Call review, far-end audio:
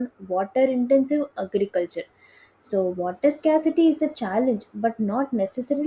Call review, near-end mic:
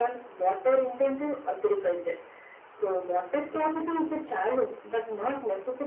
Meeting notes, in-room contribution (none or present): none